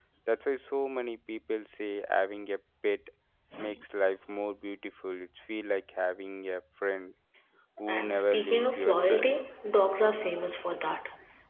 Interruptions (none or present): present